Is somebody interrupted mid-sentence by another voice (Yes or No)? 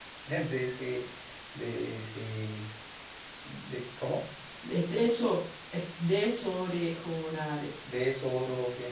No